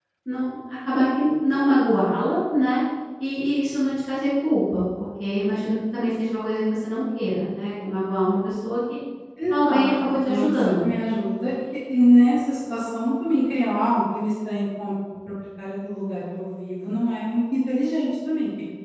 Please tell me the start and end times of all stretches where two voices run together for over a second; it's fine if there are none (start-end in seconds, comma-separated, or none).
9.5-10.9